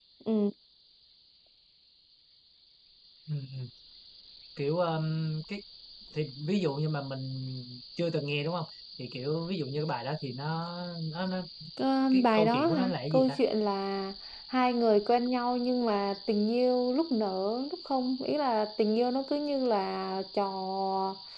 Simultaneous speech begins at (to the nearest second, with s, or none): 12 s